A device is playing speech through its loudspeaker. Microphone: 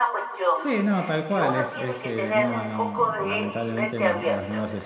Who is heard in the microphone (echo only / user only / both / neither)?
both